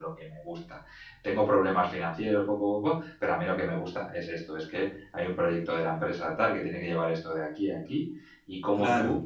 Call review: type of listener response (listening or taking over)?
listening